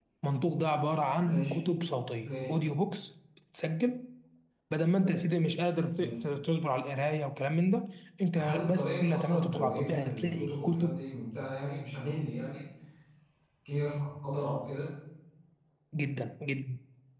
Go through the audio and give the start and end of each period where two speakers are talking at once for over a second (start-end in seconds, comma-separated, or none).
8.3-11.0